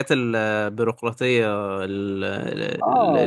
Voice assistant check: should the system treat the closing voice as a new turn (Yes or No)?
Yes